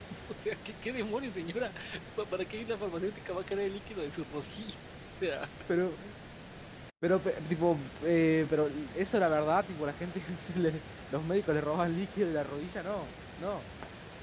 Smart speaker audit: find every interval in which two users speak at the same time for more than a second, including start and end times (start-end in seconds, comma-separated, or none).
none